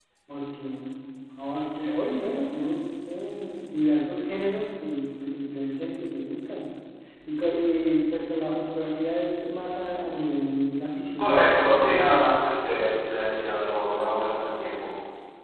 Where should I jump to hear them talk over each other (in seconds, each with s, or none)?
11.2 s